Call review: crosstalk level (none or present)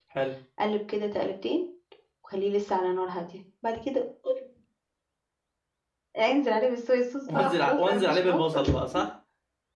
present